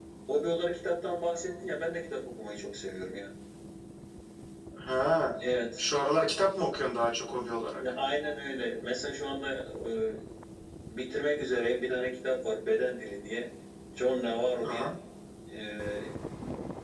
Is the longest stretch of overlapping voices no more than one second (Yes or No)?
Yes